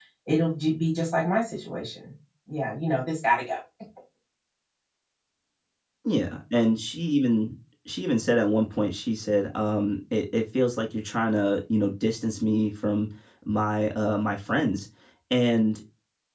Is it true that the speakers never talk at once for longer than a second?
Yes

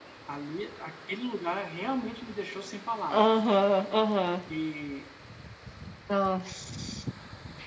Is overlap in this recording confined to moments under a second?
Yes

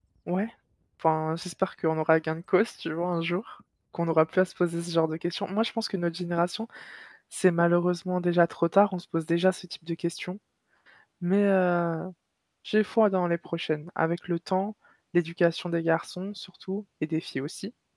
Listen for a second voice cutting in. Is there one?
No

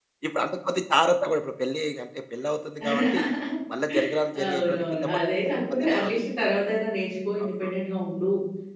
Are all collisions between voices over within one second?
No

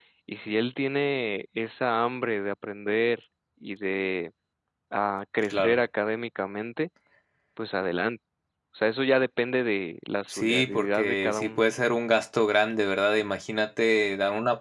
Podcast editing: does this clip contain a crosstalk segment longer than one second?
Yes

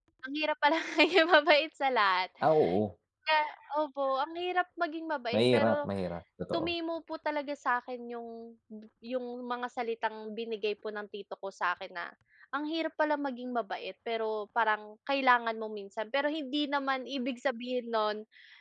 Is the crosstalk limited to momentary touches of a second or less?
Yes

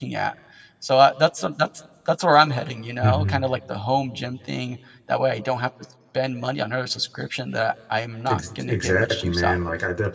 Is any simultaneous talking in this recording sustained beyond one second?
Yes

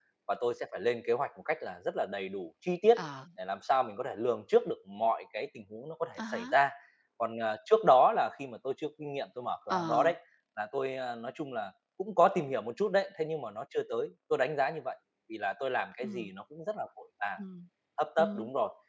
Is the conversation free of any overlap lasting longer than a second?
Yes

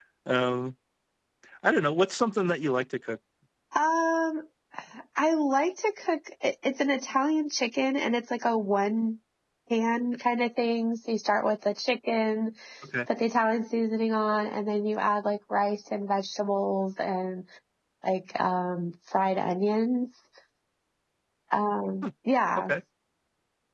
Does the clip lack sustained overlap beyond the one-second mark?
Yes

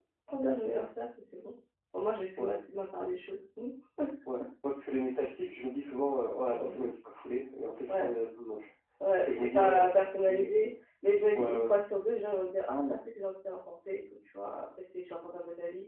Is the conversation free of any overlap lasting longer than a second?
No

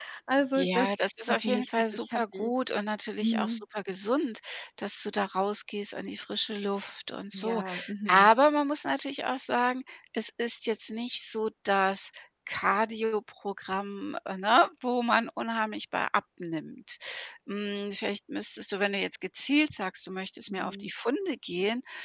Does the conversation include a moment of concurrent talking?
Yes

